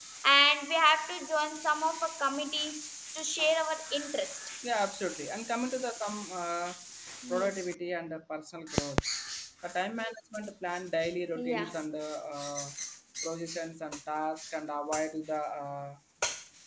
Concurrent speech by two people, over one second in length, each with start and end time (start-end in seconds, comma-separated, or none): none